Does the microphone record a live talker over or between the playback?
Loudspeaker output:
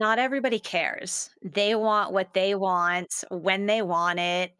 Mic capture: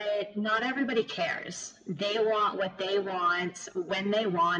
No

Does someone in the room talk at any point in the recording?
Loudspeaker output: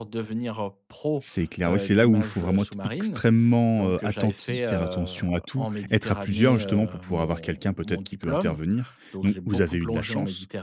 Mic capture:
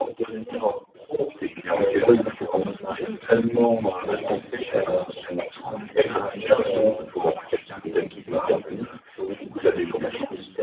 No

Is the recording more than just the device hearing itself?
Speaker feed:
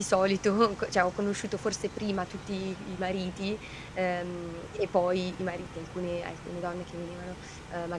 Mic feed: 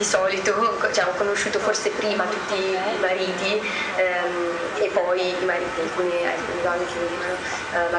Yes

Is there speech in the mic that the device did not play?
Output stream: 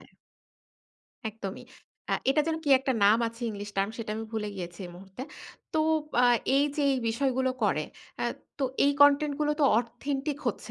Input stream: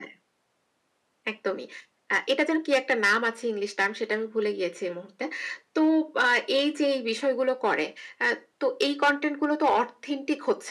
No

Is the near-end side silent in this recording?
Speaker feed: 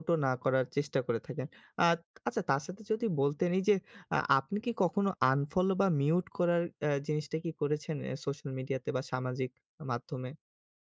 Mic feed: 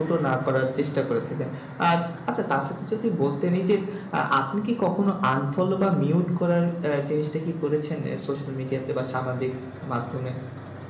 Yes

